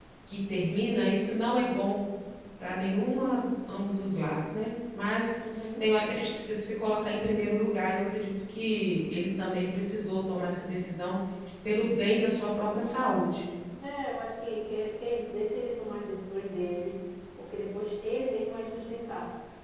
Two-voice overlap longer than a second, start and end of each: none

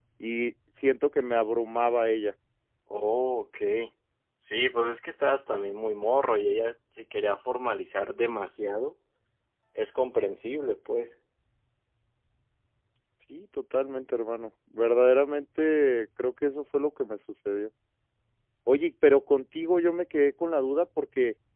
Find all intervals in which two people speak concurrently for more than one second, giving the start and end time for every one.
none

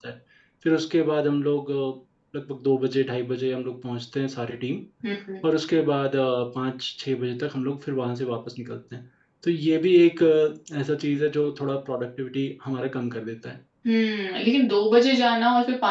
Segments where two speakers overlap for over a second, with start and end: none

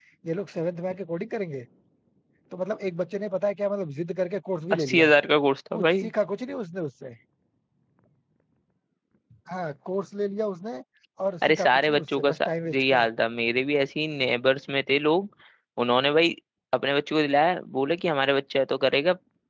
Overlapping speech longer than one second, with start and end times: 11.5-12.9

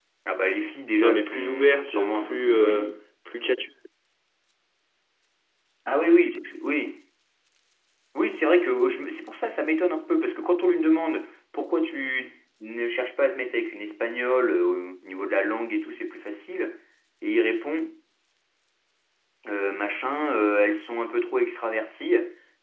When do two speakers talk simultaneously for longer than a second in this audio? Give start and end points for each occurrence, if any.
1.0-2.9

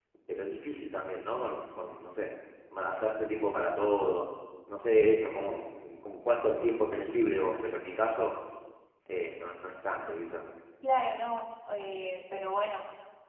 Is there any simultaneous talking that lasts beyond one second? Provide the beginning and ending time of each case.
none

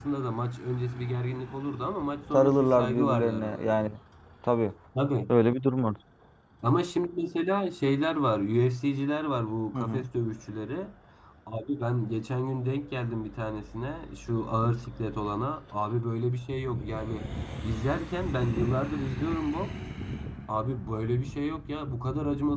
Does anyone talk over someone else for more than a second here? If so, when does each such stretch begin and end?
2.3-3.9

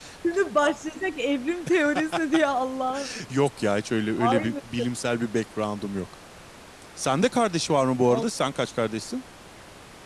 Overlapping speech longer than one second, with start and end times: none

